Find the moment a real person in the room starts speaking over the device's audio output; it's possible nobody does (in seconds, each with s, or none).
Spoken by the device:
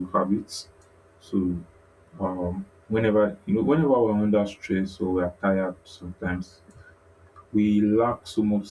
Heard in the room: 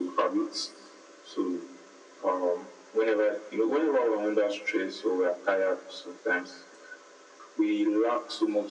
none